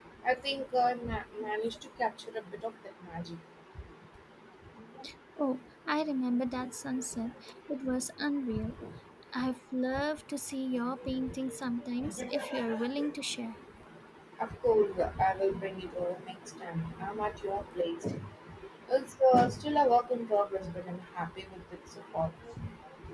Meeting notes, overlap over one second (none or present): none